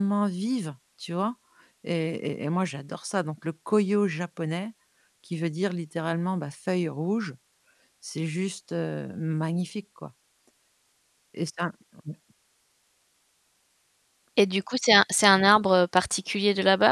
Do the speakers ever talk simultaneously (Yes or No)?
No